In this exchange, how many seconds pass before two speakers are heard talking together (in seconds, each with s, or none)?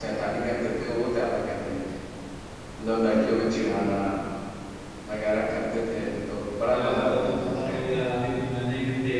6.7 s